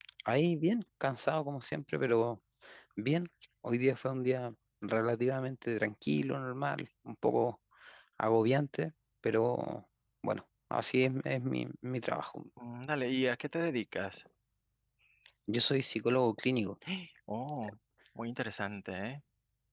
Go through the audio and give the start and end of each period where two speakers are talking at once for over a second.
none

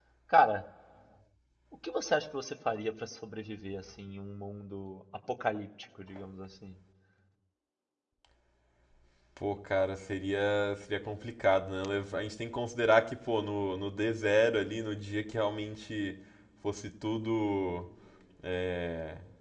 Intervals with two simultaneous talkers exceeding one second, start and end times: none

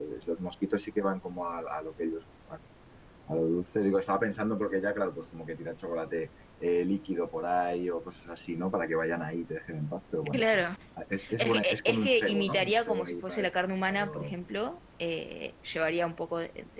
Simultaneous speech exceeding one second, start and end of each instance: 11.4-13.5

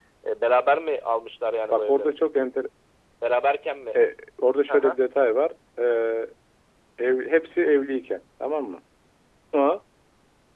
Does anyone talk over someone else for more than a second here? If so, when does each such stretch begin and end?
none

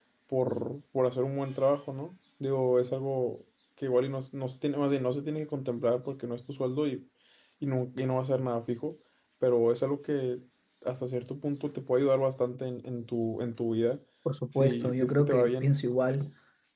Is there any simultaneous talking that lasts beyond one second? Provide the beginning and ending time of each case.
14.5-15.7

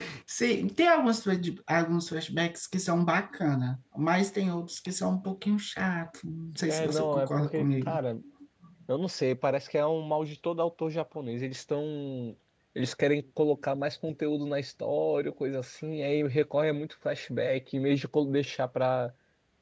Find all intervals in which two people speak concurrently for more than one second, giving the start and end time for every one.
6.7-8.0

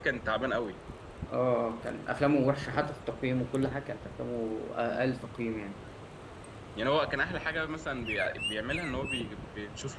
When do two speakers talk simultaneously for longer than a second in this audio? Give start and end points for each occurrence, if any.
none

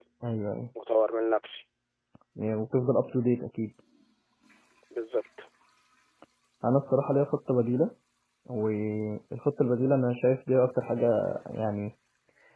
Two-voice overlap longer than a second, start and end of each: none

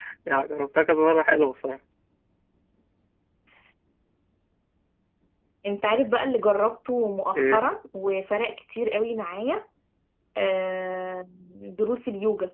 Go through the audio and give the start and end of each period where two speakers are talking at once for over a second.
none

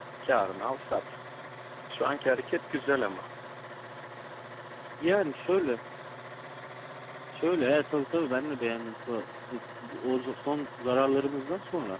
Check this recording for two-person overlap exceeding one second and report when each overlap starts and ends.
none

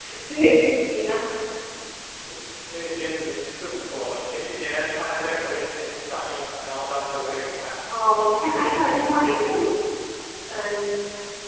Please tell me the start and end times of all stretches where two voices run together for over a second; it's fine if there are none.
none

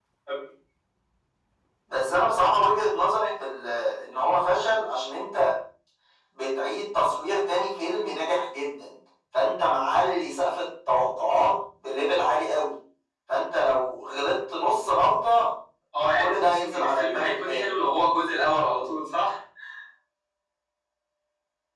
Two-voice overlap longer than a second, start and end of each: 16.2-17.7

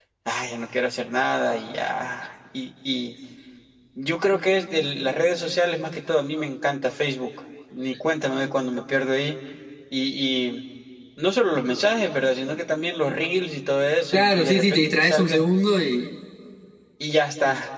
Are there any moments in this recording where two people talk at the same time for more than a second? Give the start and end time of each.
14.1-15.4

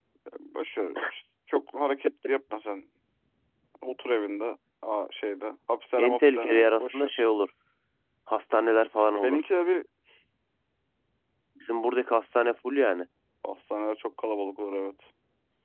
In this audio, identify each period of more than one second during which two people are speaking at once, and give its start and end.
6.0-7.2

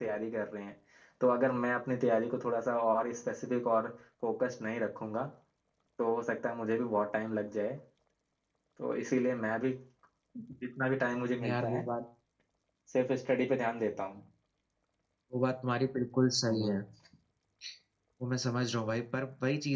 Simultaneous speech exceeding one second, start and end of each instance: none

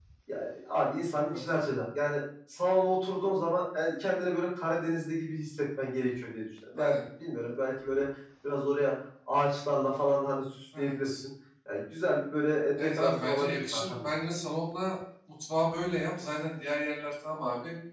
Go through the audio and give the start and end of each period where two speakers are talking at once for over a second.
12.8-14.1

